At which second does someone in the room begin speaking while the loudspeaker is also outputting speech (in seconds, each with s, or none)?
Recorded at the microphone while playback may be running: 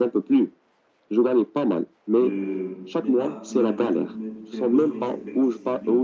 2.2 s